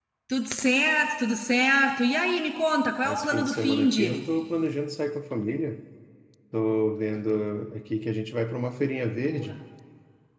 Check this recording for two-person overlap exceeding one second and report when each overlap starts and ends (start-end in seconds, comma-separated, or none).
3.0-4.3